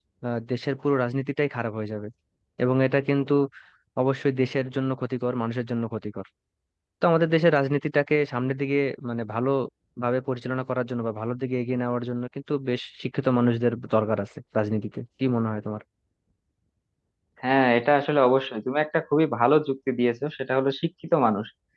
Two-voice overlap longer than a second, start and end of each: none

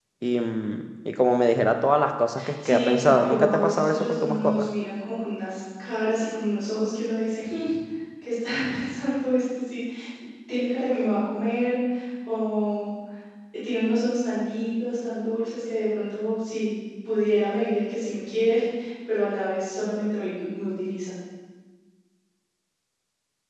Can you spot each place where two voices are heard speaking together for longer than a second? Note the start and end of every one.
2.6-4.7

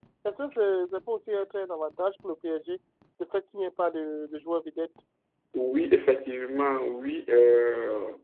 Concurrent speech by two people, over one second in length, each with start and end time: none

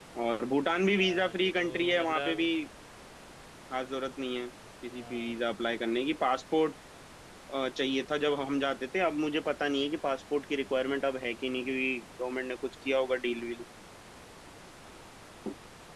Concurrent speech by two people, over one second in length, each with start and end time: 1.0-2.5

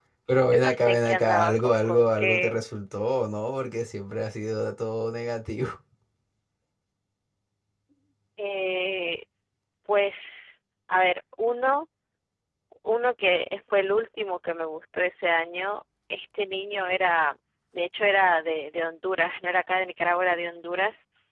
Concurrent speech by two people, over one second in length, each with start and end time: 0.5-2.6

